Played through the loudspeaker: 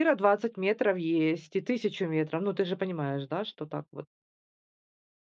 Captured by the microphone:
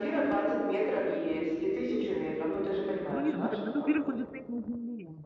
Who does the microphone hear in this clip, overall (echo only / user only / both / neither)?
both